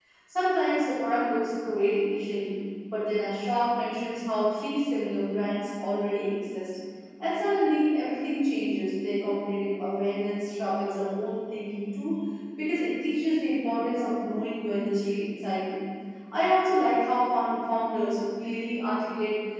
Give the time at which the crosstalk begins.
none

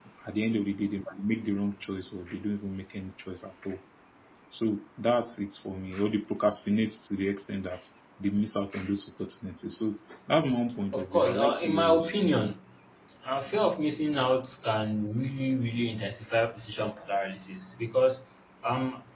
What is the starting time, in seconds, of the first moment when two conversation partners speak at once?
10.9 s

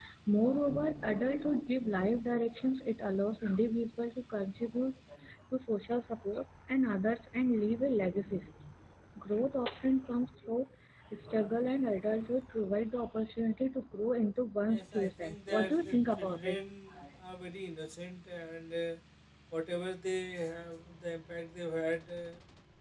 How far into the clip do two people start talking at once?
14.7 s

